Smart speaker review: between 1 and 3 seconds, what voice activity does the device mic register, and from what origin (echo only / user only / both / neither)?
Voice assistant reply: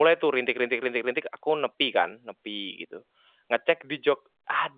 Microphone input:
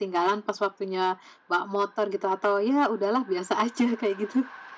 user only